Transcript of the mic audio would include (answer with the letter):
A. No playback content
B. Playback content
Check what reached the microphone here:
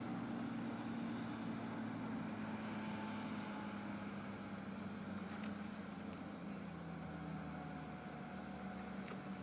A